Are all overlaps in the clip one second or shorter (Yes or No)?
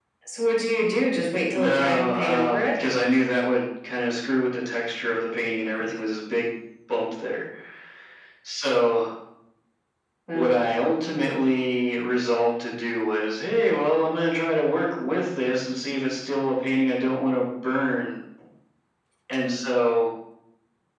No